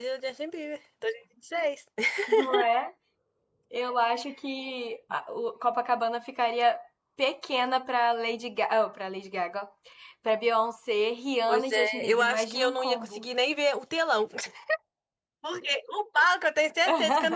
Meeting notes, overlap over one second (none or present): present